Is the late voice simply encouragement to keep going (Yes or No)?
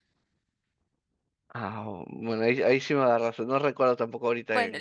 No